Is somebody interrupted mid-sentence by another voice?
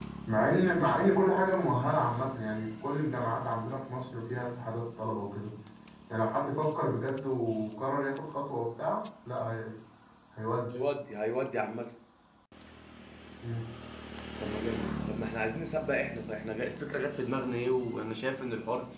No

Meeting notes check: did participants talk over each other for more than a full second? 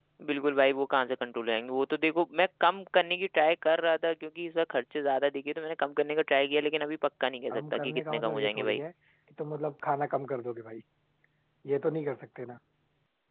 Yes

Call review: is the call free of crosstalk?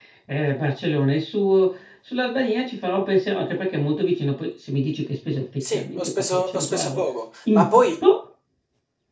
No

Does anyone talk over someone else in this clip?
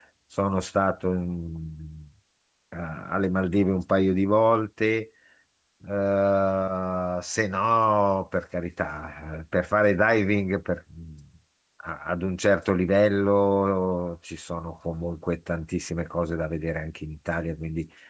No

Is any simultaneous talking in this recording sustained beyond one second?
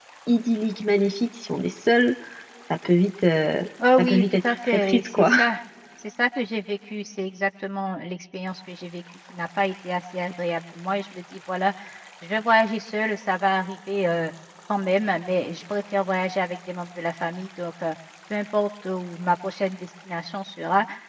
Yes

